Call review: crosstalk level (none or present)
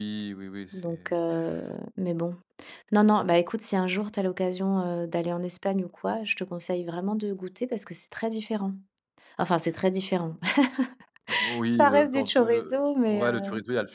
present